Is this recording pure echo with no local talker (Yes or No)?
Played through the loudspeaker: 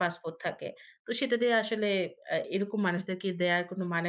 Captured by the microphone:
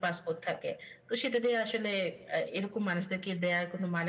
Yes